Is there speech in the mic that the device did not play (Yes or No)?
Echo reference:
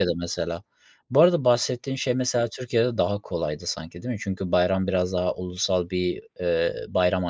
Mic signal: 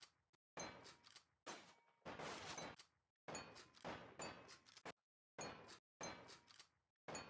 No